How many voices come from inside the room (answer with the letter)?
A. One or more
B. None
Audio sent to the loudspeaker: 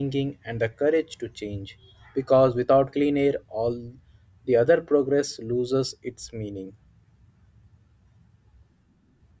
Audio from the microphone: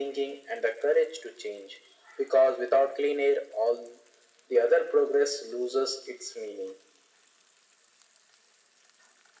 B